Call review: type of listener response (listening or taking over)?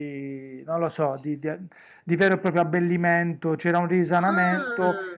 listening